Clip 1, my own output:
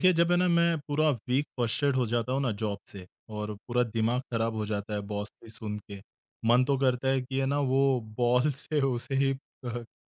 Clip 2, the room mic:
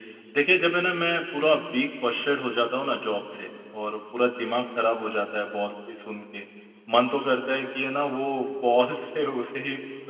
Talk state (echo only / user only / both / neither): echo only